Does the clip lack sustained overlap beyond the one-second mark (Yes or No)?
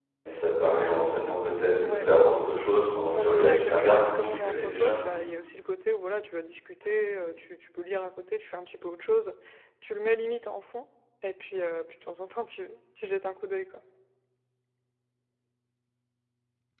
No